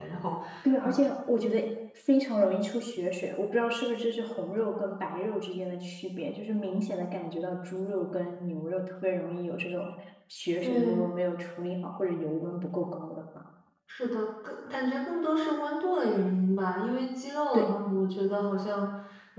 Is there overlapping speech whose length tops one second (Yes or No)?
No